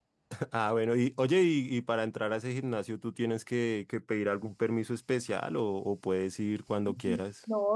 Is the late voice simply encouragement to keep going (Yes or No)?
No